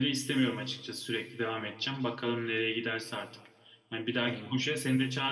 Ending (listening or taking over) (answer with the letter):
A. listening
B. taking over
A